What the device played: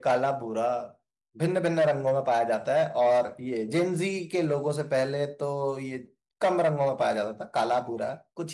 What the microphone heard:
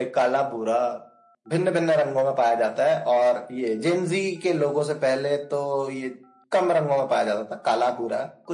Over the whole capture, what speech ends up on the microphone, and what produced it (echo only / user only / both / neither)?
echo only